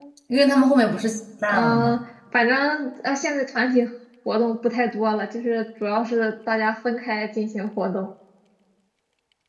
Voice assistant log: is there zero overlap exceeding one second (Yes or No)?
Yes